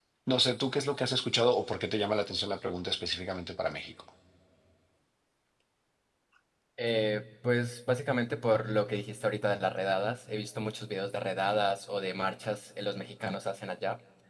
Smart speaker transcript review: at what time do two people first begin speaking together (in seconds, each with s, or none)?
none